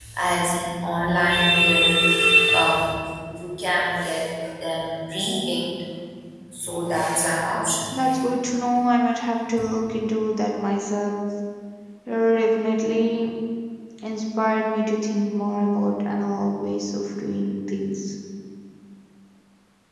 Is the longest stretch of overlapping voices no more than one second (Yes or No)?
Yes